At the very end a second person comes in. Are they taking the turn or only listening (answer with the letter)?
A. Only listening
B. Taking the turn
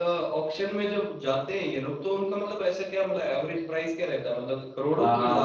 B